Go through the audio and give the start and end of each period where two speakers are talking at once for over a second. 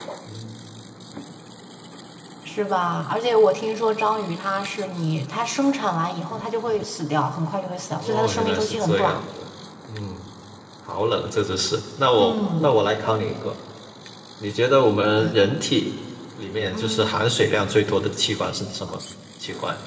8.0-9.2

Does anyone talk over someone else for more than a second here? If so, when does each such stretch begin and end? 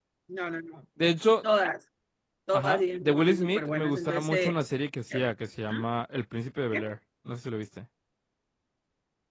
2.5-4.5

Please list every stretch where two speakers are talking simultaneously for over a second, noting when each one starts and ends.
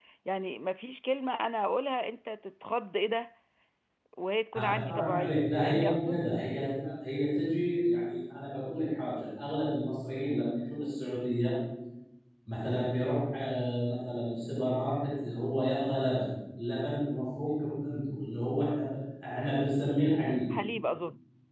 4.6-6.2

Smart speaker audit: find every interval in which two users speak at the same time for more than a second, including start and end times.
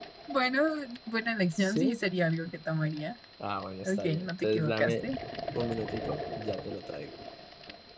3.8-5.1

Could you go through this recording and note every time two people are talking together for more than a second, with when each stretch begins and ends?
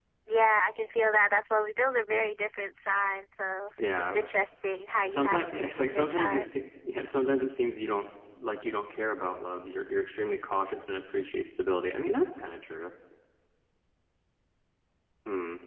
5.0-6.4

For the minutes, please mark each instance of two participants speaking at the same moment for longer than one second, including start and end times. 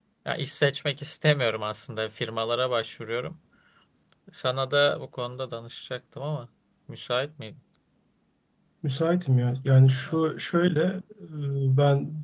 none

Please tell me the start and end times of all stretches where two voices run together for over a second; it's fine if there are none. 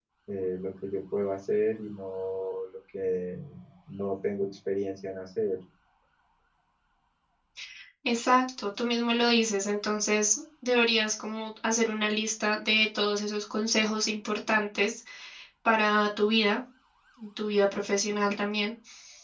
none

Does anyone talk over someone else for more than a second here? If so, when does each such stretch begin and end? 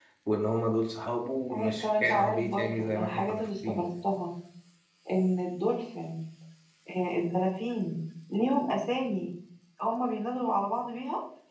1.5-3.9

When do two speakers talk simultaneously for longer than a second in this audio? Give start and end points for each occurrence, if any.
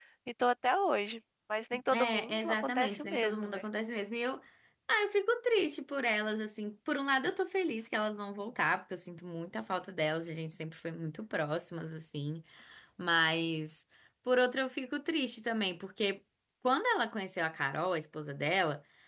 1.9-3.6

